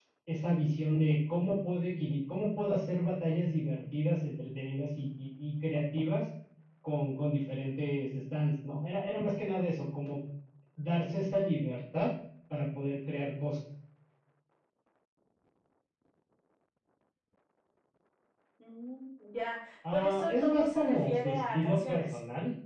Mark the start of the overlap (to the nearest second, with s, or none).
20 s